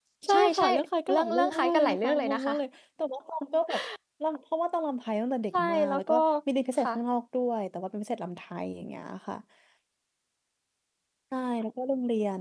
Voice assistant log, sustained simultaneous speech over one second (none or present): present